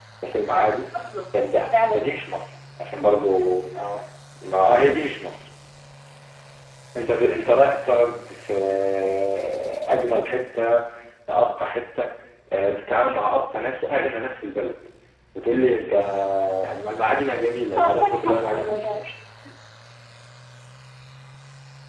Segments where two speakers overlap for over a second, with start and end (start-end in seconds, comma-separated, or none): 17.2-19.1